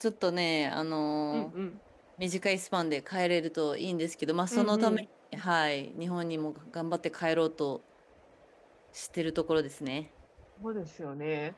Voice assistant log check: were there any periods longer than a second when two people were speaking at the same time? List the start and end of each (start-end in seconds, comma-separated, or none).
none